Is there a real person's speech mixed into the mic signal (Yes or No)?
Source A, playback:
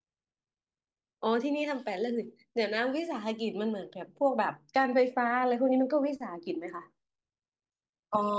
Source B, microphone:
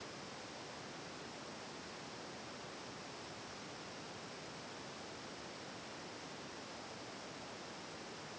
No